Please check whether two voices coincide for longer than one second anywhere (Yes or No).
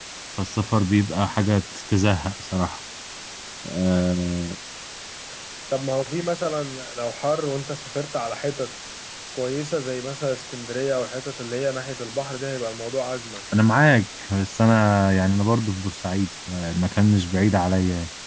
No